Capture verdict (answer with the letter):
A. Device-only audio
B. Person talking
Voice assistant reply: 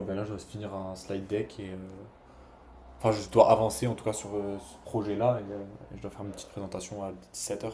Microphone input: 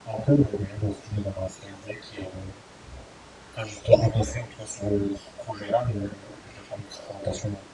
A